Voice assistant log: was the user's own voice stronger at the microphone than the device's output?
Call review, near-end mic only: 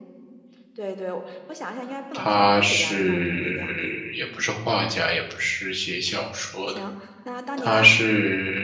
Yes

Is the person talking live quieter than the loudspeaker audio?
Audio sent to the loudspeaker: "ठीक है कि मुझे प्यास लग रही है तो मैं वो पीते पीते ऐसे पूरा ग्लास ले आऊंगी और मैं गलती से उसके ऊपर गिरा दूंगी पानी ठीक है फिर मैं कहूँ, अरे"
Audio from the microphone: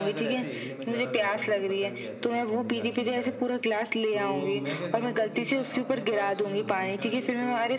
Yes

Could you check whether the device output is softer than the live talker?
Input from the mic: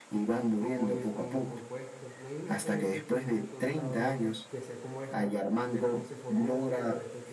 No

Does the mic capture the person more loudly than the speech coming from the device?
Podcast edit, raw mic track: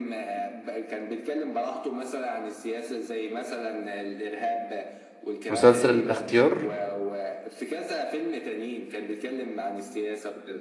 Yes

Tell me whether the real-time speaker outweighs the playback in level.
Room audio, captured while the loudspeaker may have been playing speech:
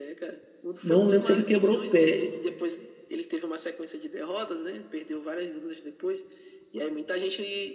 Yes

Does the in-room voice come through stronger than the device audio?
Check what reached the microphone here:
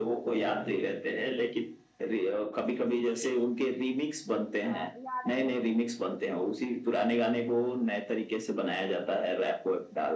No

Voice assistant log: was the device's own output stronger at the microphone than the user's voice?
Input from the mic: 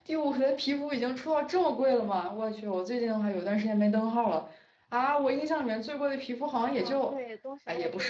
Yes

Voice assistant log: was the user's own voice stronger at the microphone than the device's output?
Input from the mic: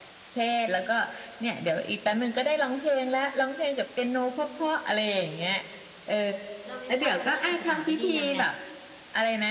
No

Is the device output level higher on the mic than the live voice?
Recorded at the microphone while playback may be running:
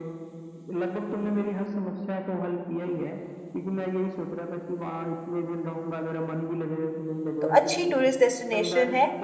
No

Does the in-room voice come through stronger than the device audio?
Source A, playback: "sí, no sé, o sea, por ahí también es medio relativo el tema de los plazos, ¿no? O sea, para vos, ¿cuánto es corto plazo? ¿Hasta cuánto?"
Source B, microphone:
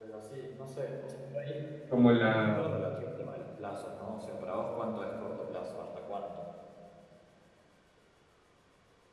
Yes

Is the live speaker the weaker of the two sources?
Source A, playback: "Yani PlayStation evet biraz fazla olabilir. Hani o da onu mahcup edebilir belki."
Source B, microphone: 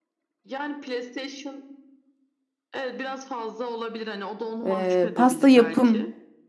No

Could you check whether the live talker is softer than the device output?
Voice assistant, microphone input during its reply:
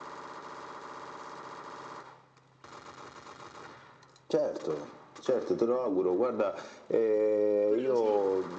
Yes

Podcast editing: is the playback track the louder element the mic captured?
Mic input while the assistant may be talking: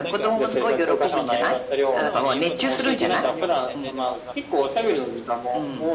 Yes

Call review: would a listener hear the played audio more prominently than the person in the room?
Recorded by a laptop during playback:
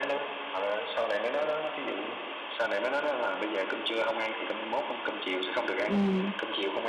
No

